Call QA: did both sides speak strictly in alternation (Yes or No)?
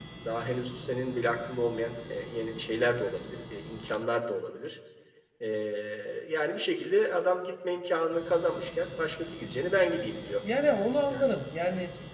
Yes